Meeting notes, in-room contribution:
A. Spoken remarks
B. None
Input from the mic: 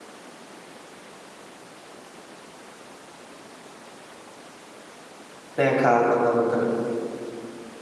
A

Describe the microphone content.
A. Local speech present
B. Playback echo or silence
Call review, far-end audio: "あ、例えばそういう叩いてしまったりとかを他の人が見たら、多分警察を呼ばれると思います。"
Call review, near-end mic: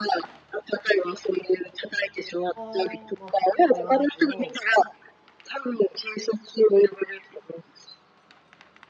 A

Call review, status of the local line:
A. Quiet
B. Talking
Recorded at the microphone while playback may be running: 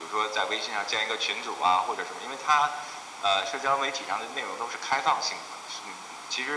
A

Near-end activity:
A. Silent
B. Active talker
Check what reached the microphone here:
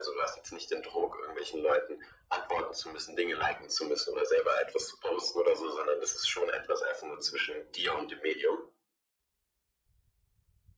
A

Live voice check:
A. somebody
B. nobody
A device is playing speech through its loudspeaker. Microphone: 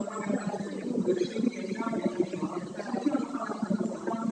B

